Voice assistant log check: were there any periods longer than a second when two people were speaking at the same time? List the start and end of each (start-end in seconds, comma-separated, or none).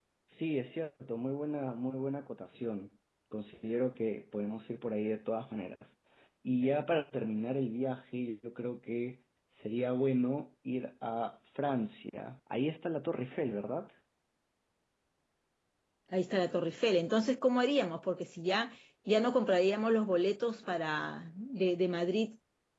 none